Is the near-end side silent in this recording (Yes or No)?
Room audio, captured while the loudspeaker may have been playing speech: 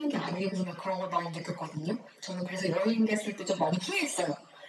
Yes